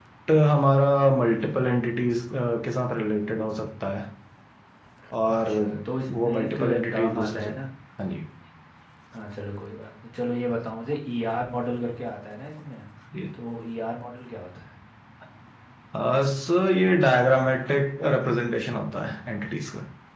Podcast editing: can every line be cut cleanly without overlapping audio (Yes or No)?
No